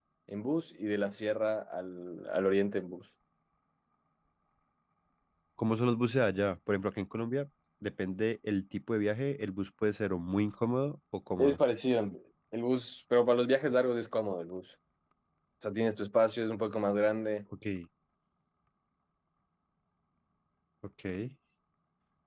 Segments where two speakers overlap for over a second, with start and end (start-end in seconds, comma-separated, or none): none